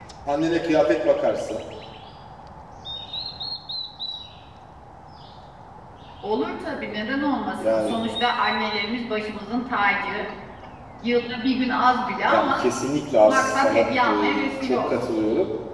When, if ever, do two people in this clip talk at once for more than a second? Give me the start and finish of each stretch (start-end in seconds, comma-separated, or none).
13.3-14.9